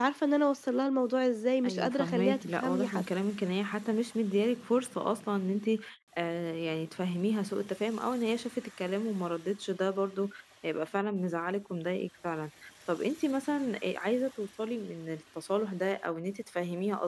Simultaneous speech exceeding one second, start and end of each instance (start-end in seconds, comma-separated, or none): 1.6-3.0